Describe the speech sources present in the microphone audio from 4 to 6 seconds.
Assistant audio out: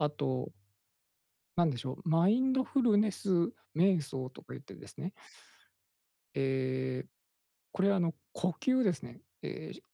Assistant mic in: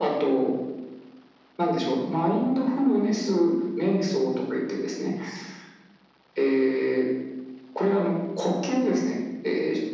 echo only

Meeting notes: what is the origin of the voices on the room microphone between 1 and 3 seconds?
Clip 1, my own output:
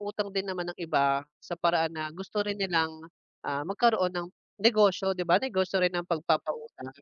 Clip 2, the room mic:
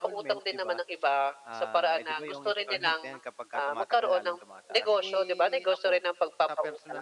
both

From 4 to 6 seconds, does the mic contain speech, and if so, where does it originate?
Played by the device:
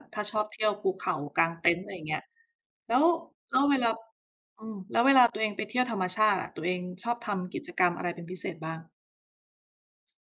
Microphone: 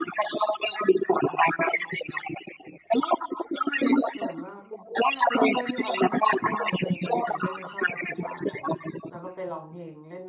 both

